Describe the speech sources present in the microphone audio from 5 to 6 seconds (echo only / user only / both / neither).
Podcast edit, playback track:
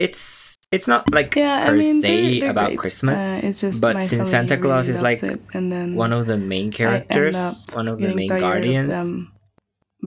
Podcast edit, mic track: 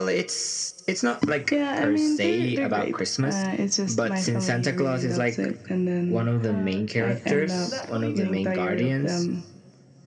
echo only